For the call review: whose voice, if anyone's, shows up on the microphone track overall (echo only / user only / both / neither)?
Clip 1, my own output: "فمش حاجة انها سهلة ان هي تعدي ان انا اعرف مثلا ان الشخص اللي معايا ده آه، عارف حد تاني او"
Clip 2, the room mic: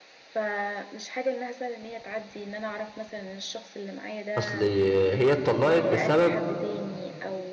both